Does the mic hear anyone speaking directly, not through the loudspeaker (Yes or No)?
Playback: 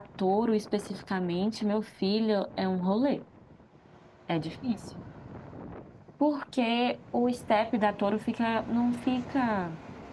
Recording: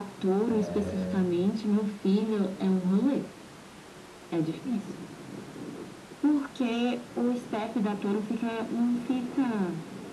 Yes